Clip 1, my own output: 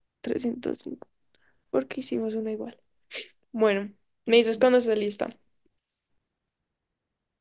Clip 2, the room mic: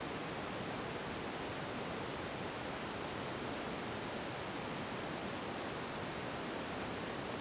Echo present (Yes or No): No